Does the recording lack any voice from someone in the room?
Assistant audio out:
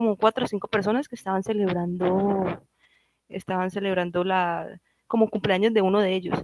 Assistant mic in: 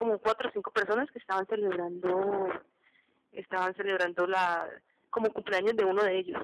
Yes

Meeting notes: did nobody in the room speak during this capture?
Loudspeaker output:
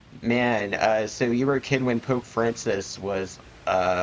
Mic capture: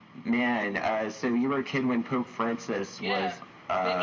No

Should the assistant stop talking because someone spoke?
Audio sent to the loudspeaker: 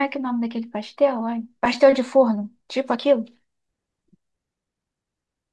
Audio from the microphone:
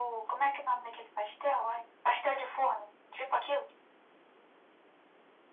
No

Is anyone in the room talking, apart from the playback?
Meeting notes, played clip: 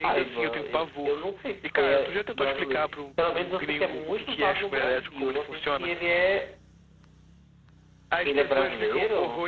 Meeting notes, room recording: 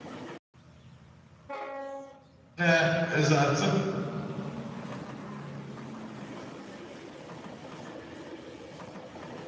Yes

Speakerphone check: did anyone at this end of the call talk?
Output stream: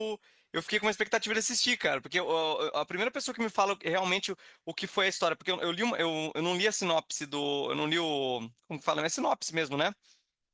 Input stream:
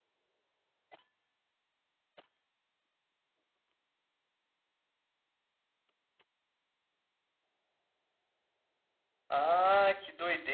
Yes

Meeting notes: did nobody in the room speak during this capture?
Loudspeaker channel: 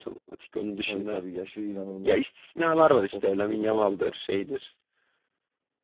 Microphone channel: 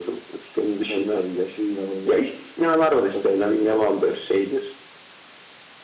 Yes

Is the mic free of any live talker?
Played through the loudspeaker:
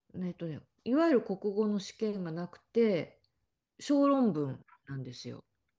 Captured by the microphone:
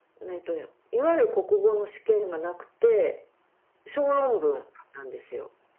Yes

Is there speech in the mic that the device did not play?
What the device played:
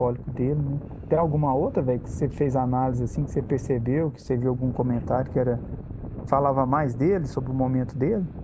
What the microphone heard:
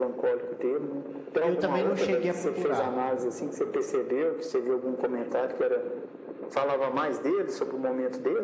Yes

